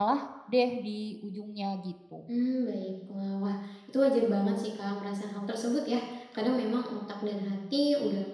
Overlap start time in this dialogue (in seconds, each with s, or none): none